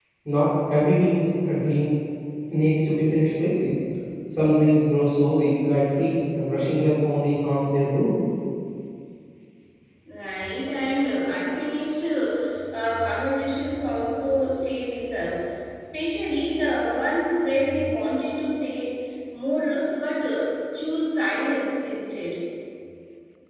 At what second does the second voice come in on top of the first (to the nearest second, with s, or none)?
none